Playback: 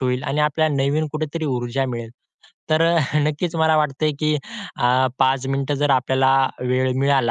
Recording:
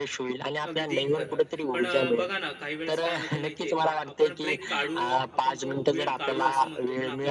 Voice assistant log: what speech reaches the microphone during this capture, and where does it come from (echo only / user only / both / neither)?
both